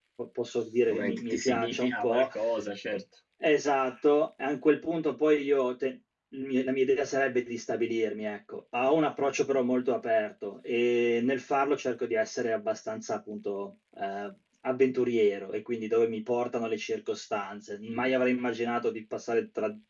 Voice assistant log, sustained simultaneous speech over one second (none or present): present